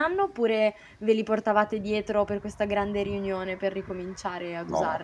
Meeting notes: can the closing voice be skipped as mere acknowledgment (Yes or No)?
No